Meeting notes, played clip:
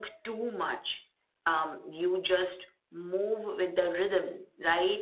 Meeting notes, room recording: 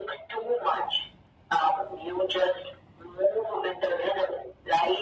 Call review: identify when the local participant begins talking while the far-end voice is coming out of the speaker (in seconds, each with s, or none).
none